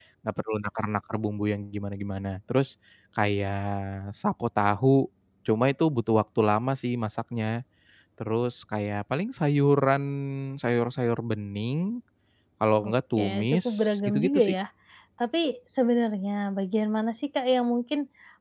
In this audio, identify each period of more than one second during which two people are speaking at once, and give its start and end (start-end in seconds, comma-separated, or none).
12.8-14.5